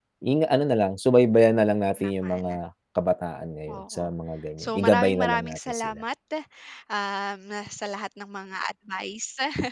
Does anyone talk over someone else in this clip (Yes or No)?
Yes